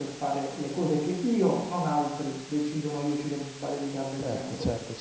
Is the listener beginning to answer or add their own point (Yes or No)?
Yes